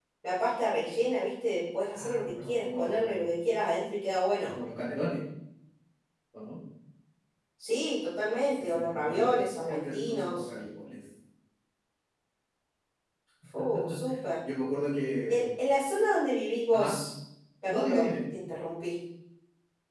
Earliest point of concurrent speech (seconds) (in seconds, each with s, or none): 1.9 s